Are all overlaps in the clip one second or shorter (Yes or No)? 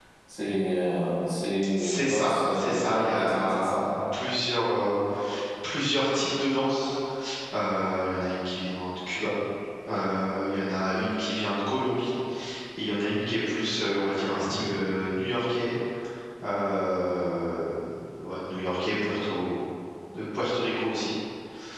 No